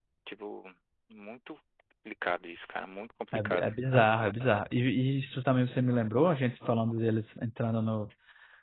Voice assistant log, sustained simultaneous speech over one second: none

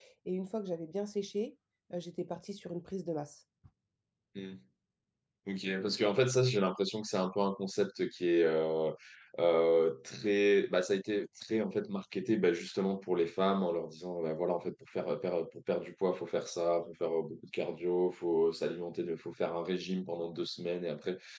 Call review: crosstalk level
none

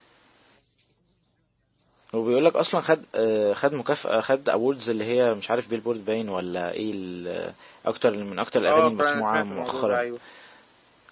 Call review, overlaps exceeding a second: present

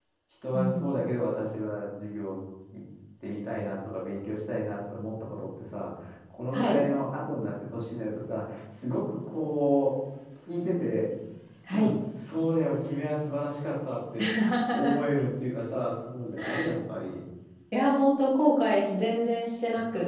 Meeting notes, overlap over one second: none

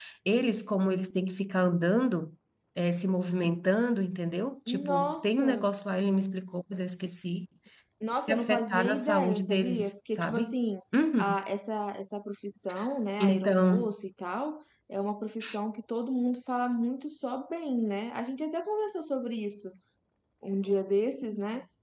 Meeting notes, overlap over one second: present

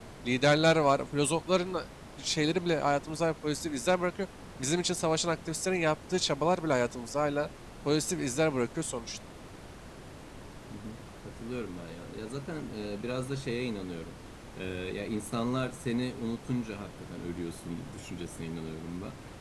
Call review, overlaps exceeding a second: none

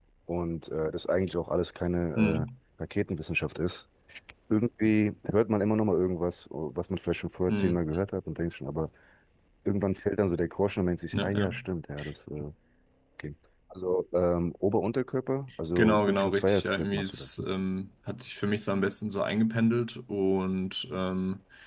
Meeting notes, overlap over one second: present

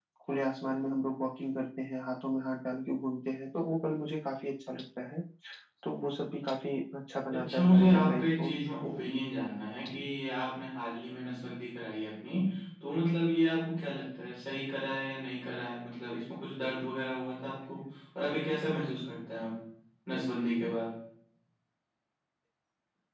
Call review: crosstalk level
present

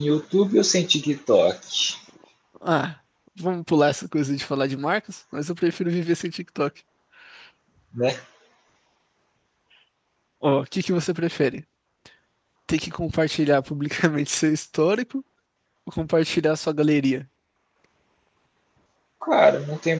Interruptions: none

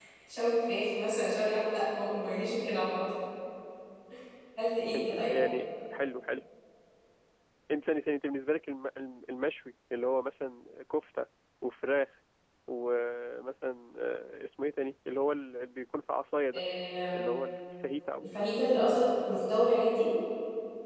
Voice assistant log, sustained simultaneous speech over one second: none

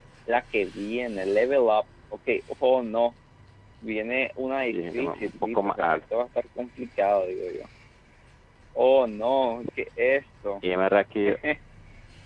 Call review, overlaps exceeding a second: present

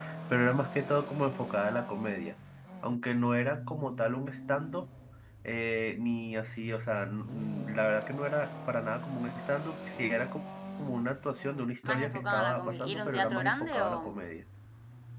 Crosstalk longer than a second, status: present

